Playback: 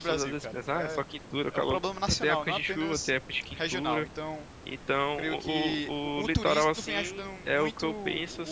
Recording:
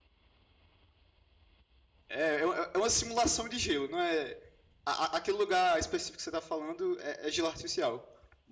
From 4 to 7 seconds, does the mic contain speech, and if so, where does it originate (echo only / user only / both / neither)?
user only